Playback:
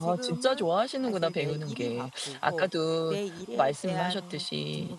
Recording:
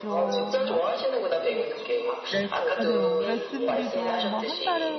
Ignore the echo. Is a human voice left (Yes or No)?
Yes